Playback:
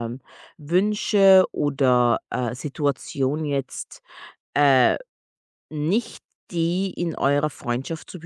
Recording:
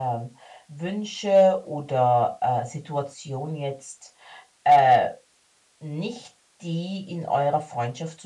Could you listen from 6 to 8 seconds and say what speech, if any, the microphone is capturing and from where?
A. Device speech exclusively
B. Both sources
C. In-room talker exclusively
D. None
A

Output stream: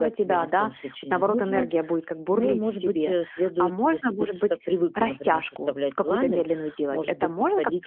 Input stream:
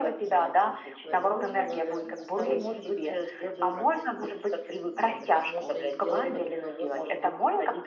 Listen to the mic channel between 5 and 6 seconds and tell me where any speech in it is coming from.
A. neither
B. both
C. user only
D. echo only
B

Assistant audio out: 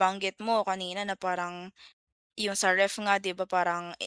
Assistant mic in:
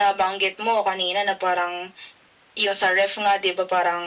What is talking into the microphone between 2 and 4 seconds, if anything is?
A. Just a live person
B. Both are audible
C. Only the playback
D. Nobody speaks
C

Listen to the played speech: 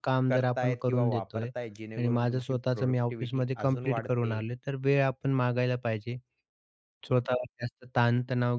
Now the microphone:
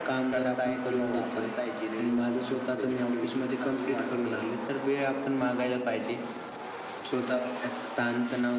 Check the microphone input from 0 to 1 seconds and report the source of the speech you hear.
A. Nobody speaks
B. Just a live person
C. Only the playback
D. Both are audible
C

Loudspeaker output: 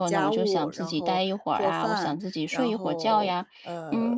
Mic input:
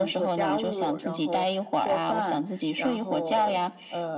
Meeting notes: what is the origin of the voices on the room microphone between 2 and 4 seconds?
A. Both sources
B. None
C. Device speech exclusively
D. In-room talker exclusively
C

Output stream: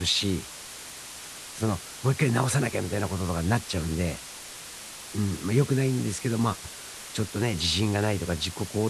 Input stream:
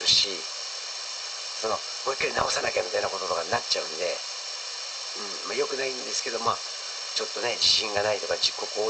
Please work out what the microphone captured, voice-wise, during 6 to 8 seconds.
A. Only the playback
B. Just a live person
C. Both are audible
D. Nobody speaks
A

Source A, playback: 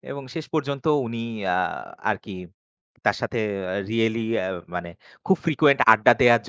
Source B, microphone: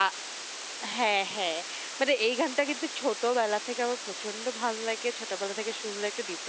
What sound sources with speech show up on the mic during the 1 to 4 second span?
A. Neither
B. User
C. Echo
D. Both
B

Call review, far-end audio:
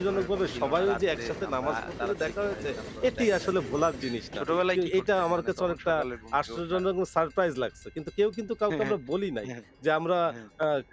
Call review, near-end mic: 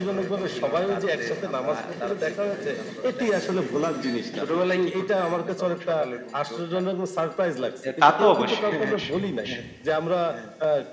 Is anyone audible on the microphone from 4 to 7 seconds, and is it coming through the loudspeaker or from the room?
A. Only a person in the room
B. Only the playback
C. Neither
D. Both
B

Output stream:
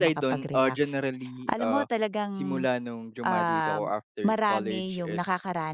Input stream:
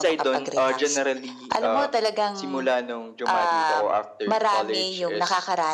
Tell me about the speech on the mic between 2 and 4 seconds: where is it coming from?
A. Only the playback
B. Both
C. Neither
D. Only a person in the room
A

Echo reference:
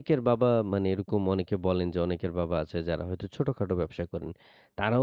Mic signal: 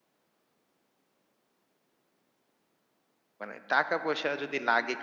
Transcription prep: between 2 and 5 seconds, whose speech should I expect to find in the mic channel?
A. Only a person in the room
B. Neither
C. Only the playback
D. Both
A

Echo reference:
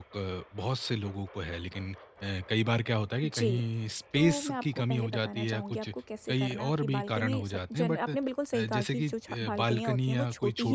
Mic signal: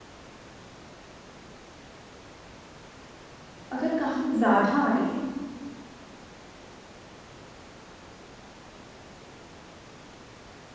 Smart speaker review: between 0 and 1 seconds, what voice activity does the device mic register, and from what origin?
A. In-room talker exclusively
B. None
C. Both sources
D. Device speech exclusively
B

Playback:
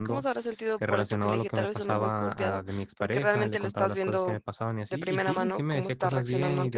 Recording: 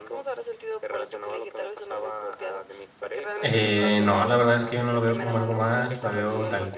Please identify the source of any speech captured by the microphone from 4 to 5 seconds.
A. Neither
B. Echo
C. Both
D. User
C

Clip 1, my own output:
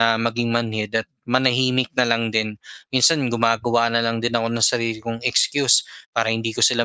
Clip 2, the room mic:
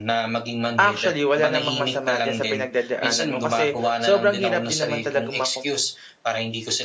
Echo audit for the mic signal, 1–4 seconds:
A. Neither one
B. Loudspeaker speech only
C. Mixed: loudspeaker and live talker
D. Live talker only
C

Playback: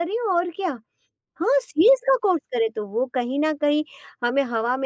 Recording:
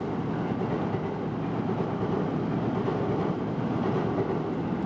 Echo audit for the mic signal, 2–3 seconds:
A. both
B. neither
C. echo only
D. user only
B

